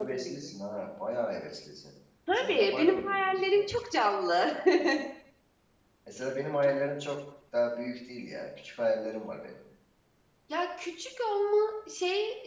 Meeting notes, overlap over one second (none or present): present